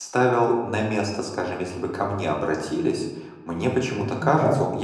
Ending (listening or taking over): listening